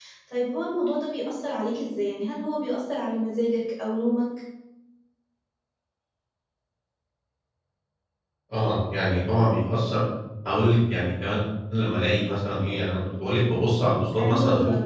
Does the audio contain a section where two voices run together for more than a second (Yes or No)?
No